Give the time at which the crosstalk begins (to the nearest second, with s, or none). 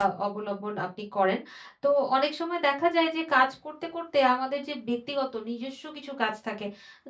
none